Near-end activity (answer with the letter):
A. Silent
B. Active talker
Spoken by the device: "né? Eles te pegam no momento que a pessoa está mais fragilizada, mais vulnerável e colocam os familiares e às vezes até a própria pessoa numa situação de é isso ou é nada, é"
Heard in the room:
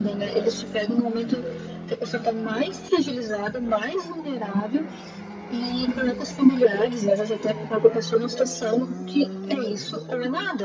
A